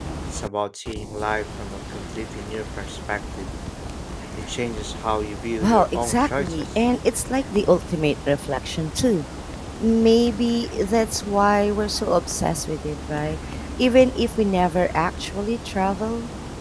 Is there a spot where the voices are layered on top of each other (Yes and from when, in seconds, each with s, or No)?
Yes, from 5.6 s